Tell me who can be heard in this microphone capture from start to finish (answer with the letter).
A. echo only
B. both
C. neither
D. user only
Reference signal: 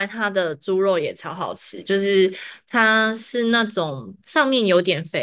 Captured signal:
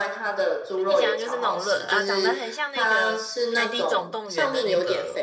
B